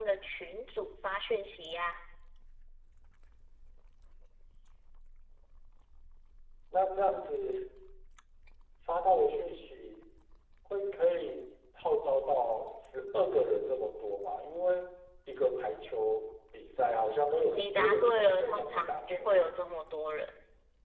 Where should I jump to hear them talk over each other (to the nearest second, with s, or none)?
18 s